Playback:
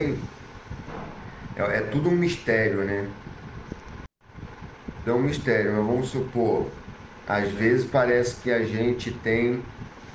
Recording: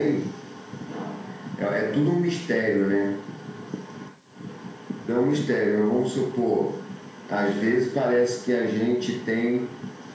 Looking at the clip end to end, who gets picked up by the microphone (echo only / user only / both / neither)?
echo only